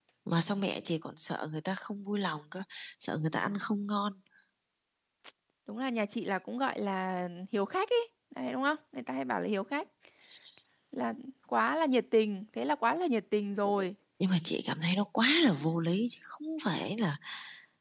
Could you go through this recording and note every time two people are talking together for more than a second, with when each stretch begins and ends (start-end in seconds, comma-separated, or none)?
none